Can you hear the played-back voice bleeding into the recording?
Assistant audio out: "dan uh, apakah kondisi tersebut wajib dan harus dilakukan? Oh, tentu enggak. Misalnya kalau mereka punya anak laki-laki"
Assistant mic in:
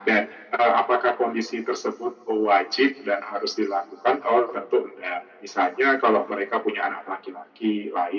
Yes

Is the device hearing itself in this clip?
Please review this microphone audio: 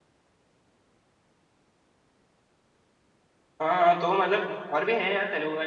No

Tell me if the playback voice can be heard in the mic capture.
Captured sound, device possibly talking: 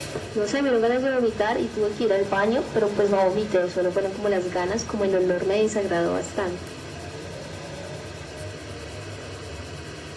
Yes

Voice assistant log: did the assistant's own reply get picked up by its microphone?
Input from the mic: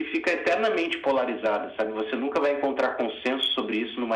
Yes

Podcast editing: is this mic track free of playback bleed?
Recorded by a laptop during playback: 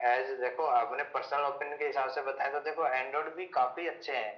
No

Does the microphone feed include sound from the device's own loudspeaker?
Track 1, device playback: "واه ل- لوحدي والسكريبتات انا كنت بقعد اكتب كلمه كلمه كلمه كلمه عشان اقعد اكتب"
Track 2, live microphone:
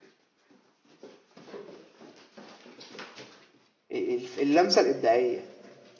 No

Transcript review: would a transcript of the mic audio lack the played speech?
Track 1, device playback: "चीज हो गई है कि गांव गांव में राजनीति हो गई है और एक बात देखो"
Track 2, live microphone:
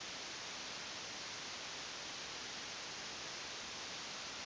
Yes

